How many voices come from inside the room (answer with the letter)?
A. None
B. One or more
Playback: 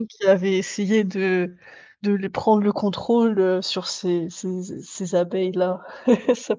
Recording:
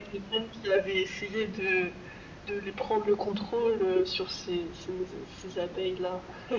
A